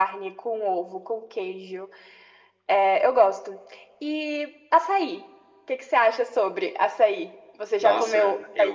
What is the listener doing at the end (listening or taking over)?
taking over